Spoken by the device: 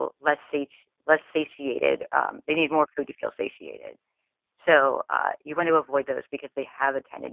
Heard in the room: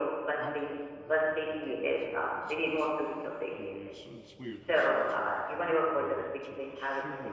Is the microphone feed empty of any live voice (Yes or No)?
No